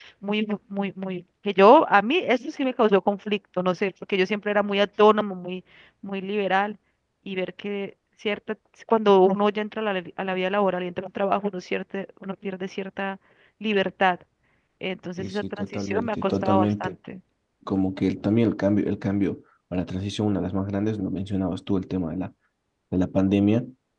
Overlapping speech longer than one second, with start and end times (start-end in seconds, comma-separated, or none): 15.2-17.0